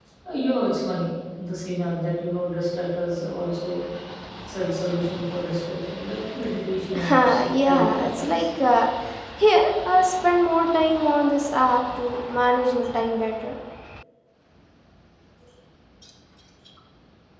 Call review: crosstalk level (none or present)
present